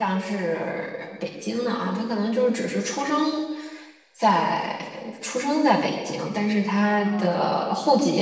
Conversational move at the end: listening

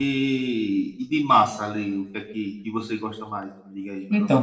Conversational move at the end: taking over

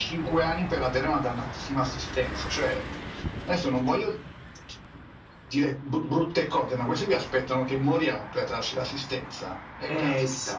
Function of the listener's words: taking over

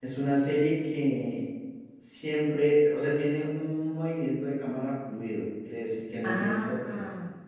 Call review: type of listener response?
taking over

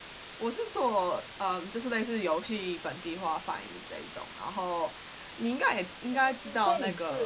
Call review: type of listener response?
taking over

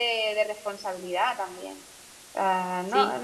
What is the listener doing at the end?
listening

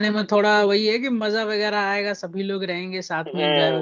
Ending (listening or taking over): taking over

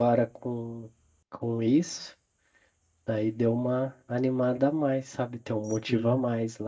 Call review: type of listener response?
listening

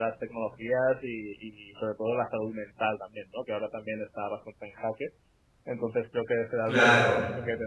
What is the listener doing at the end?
listening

